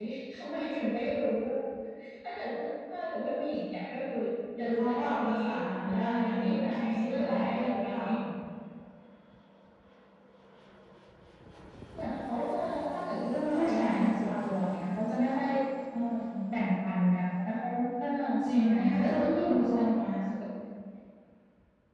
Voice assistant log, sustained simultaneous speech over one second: present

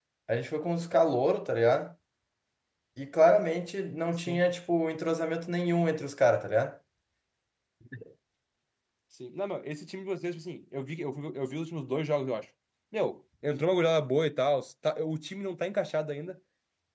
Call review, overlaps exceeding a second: none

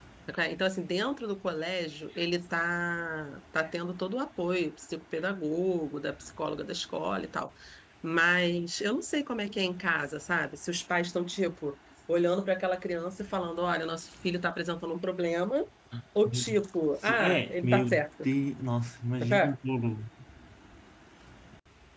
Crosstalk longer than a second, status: present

